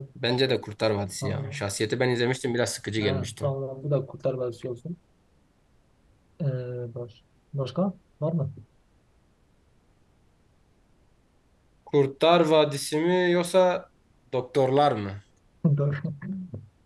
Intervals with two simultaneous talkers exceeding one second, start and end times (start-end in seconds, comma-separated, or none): none